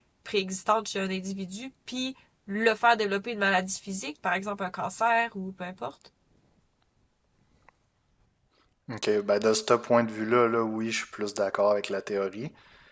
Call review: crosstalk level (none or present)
none